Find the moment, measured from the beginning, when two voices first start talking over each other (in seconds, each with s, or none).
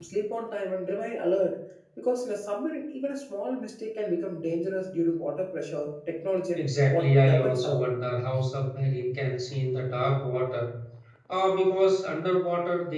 6.5 s